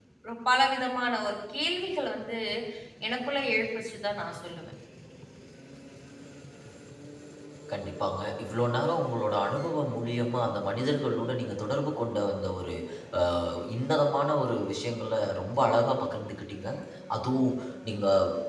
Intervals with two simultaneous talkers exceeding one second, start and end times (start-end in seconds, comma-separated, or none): none